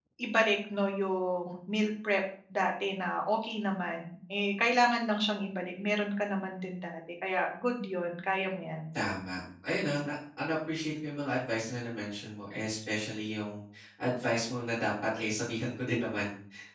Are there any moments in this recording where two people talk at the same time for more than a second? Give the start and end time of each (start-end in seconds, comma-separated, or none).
none